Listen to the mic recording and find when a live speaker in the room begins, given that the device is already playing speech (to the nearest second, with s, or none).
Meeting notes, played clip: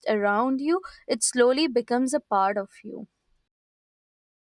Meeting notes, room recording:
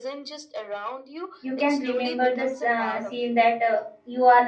1 s